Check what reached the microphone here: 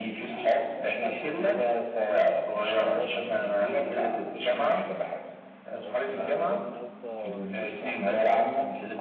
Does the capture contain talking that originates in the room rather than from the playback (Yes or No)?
Yes